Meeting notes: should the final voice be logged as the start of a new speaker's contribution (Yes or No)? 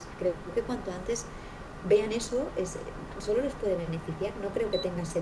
No